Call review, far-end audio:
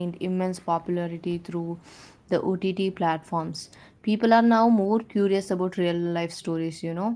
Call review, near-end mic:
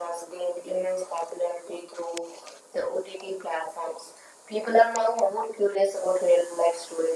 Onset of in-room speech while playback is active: none

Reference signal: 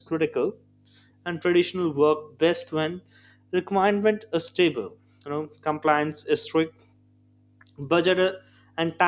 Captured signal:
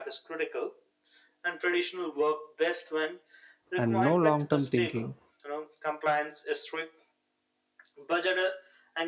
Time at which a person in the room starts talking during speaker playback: 3.8 s

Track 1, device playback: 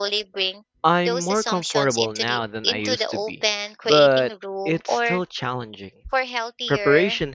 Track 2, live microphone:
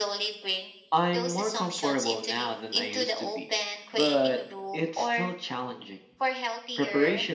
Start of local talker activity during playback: none

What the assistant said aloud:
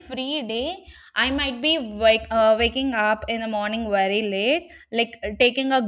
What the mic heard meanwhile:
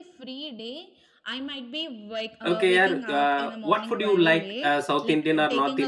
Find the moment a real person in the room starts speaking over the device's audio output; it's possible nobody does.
2.5 s

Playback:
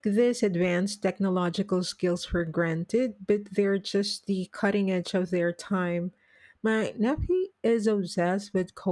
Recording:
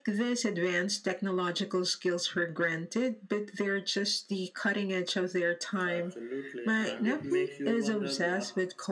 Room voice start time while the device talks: 5.9 s

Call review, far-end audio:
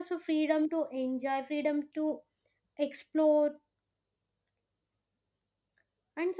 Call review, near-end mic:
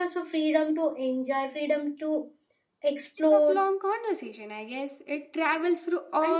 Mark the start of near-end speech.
3.2 s

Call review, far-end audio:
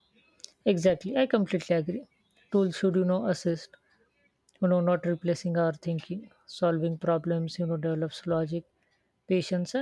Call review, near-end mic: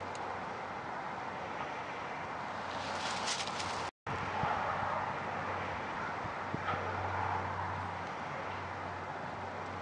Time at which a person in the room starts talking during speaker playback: none

